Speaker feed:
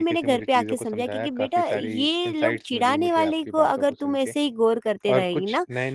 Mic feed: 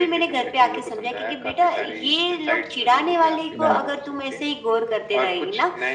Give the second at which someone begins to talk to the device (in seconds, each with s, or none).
3.5 s